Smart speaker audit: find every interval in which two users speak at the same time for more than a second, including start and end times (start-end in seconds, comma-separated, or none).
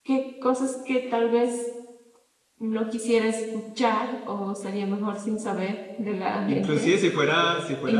none